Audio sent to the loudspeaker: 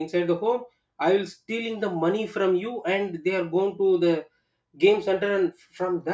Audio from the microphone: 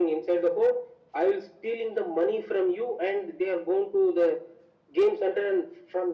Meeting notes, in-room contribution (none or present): none